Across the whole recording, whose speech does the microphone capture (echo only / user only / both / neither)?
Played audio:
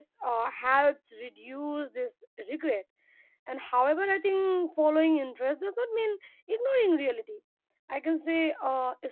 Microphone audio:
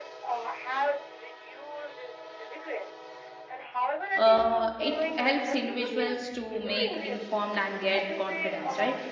both